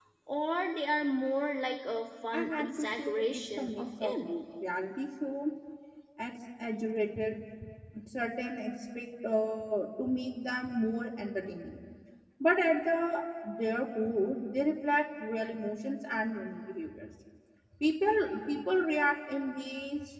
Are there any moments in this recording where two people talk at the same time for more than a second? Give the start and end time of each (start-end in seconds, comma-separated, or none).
2.3-4.3